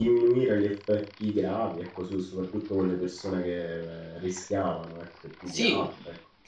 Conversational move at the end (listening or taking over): taking over